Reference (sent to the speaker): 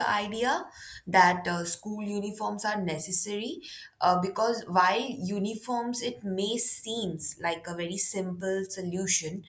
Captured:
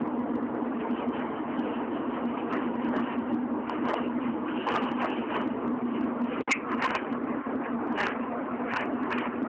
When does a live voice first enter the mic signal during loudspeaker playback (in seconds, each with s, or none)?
none